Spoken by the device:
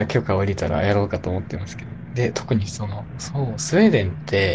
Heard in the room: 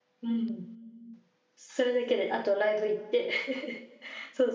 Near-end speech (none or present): present